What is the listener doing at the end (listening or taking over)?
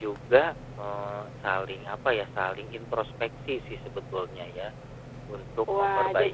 taking over